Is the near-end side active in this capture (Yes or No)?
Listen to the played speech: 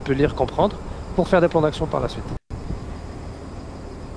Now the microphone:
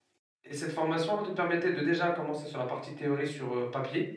Yes